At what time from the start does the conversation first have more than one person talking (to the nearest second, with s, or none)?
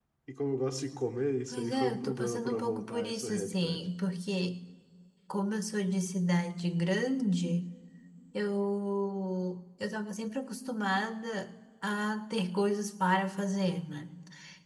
2 s